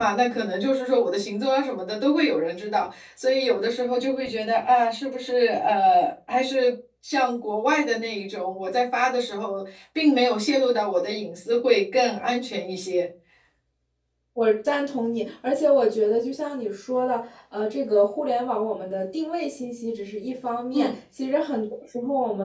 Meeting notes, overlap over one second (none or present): none